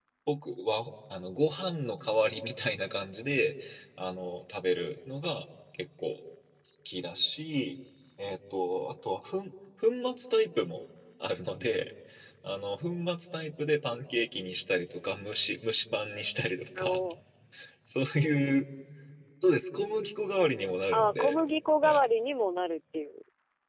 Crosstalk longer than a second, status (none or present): none